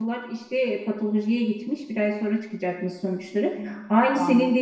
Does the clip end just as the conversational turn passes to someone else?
No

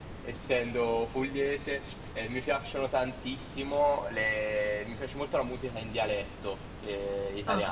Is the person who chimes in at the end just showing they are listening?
Yes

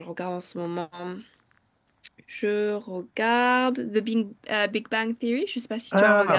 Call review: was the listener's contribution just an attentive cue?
No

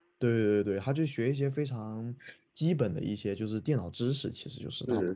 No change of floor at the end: No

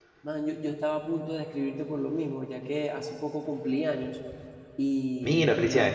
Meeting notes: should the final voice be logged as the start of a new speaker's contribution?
No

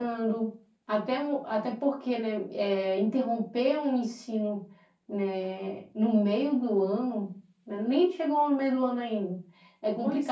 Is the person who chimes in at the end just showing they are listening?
Yes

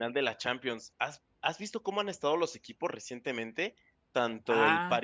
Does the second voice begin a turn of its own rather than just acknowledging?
No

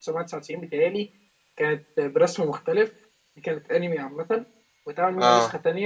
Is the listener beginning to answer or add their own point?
No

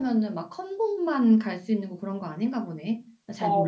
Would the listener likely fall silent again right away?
No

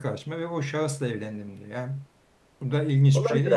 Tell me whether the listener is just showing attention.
No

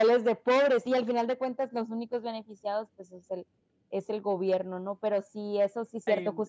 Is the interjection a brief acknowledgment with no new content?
Yes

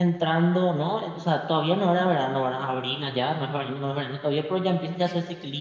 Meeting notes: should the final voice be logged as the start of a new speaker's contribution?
No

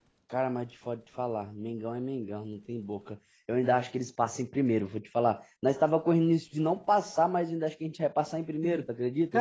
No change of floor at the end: No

